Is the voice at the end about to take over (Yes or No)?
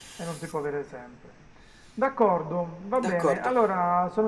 No